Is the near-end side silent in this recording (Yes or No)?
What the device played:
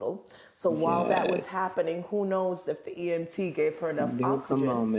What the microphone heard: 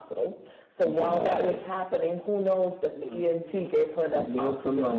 No